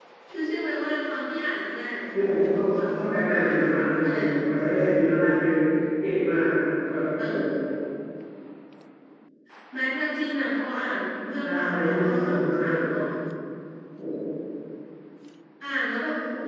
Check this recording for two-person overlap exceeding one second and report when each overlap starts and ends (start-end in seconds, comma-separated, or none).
11.4-12.8